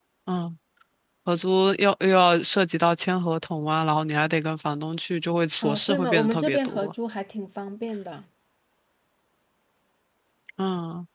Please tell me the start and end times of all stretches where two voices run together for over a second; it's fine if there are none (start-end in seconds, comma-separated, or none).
5.6-6.9